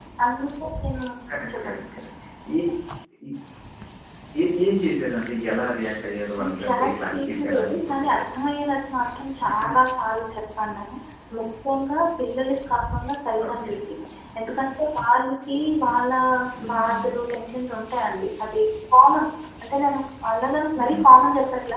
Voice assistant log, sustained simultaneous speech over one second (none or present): present